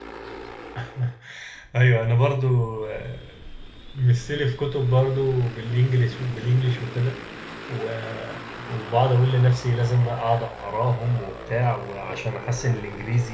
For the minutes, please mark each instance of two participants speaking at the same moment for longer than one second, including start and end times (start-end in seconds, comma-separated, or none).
none